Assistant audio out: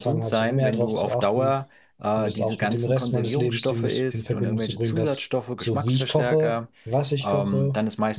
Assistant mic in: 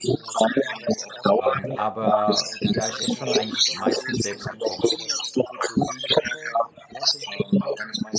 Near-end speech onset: 1.4 s

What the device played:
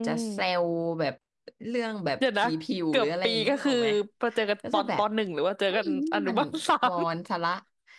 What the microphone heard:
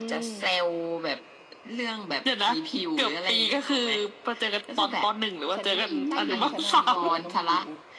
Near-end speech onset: 5.6 s

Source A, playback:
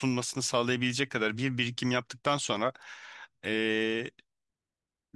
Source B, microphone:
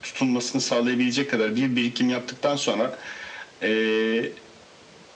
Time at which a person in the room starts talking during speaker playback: none

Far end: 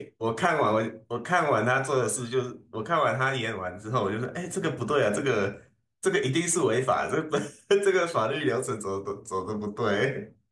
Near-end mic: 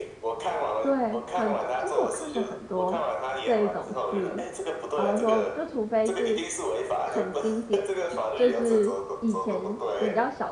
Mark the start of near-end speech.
0.8 s

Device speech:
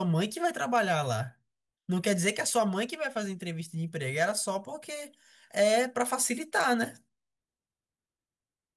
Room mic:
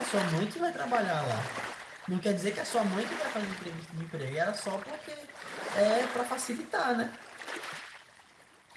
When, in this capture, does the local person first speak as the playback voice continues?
none

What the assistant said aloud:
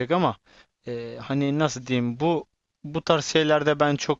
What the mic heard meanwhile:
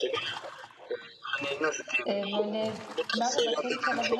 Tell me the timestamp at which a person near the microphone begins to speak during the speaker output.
2.1 s

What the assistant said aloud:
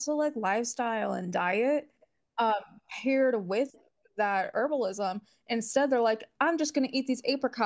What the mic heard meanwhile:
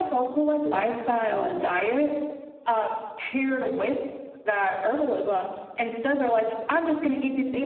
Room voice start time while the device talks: none

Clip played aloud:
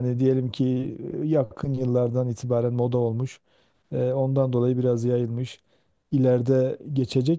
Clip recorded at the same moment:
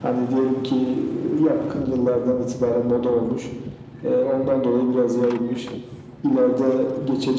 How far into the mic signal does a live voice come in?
none

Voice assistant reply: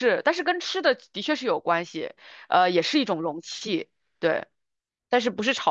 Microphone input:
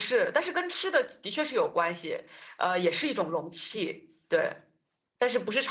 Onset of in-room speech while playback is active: none

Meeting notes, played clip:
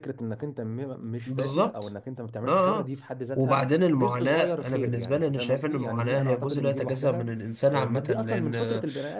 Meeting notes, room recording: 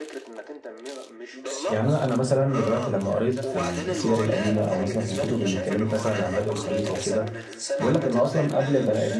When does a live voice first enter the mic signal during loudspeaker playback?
1.7 s

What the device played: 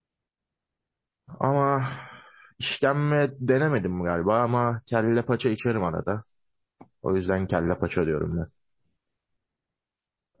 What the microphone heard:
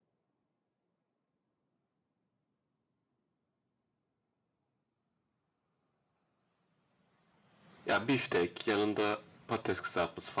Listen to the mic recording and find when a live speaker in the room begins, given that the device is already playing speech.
7.8 s

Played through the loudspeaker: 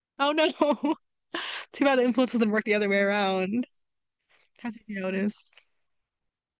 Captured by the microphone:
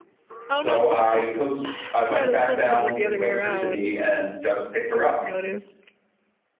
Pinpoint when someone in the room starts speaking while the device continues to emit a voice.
0.6 s

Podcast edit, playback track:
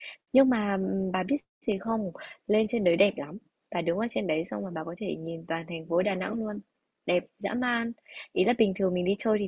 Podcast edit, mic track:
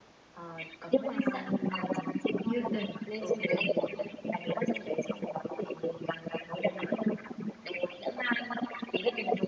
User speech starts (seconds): 0.3 s

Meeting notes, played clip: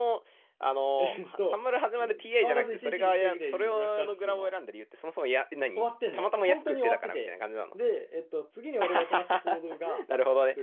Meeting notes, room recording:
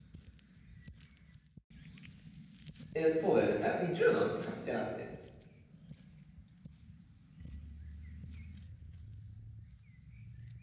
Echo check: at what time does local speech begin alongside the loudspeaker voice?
2.9 s

